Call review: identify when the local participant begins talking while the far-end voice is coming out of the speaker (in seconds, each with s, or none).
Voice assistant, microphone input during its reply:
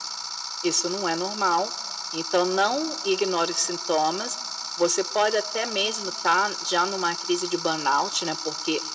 none